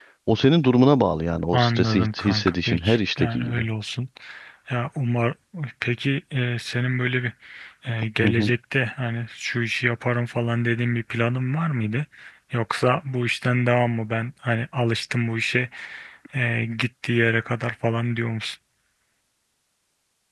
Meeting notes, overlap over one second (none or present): present